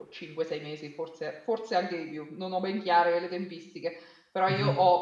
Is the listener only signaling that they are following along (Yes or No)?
Yes